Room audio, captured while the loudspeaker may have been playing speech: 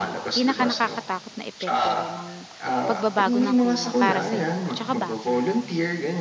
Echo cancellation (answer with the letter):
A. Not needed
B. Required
B